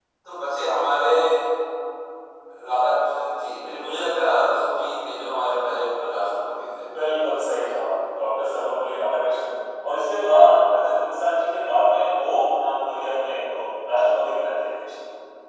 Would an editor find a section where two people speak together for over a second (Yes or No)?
No